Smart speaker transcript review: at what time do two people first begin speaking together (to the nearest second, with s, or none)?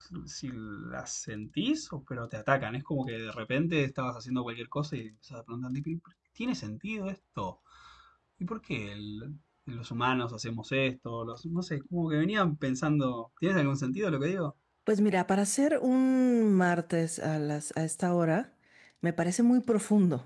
none